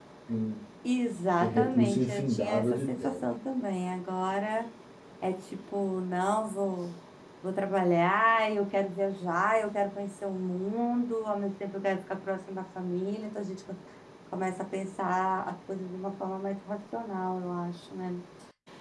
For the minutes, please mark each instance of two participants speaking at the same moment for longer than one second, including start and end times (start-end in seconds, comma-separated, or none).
1.4-3.1